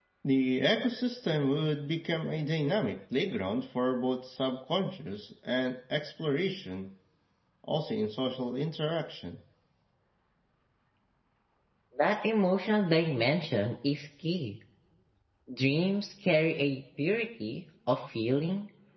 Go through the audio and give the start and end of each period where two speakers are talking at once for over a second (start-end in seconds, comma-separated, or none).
none